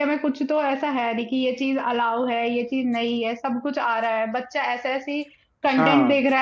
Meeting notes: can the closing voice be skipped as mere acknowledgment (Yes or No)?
Yes